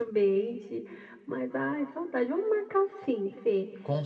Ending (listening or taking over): listening